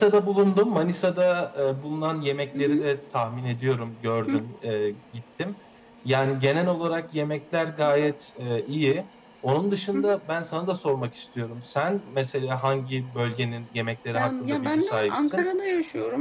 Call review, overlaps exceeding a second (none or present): present